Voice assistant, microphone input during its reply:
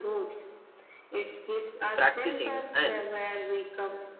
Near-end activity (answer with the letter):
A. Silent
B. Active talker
B